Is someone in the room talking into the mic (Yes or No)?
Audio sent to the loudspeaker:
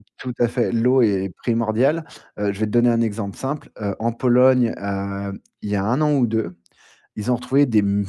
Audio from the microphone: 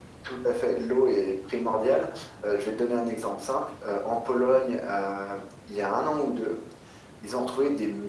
No